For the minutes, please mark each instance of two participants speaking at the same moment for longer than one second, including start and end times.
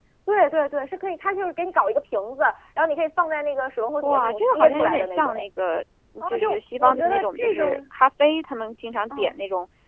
4.0-5.4, 6.2-7.7

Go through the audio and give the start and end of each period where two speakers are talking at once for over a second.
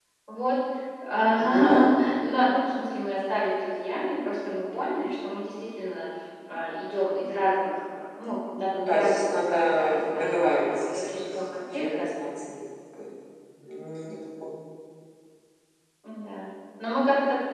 8.7-12.1

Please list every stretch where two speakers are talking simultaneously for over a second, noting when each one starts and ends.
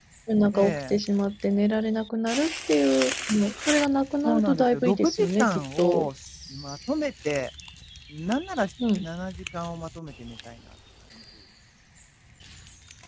4.2-6.1

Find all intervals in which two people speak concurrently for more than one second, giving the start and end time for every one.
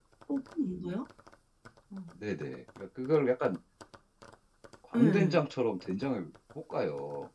none

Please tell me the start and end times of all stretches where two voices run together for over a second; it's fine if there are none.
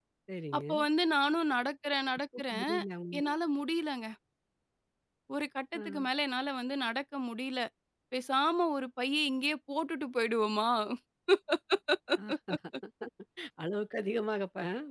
none

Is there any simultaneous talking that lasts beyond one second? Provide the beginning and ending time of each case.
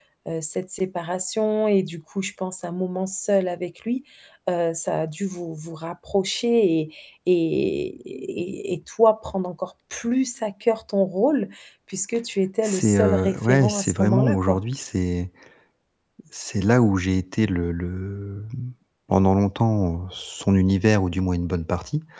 12.6-14.6

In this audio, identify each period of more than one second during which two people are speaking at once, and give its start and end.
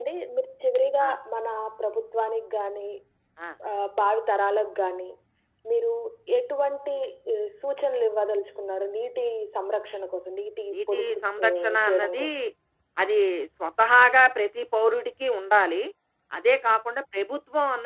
10.7-12.3

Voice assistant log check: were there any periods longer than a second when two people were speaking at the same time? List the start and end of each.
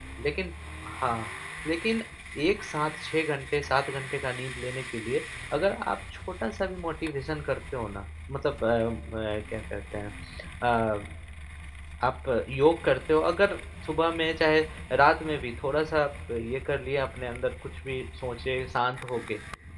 none

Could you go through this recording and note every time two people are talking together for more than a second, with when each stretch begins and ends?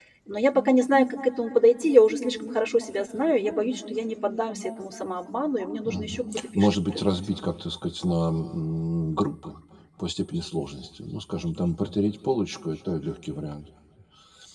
5.8-7.2

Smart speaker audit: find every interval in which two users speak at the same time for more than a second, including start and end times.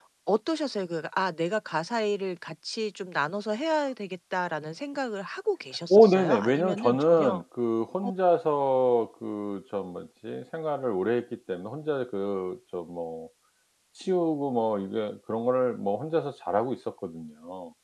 5.9-7.4

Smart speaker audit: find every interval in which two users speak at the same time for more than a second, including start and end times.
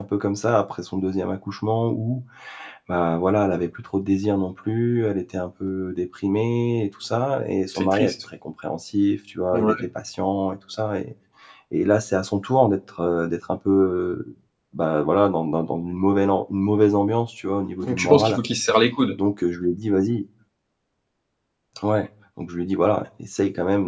none

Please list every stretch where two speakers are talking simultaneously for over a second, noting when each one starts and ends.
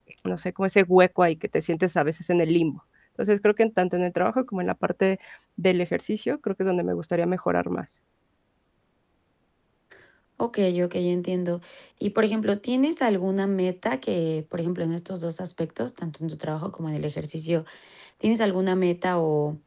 none

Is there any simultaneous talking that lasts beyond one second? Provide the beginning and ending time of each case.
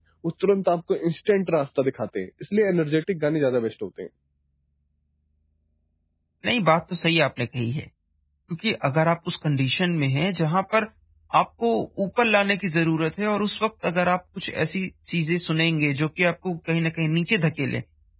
none

